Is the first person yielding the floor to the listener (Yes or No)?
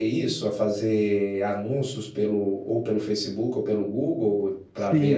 Yes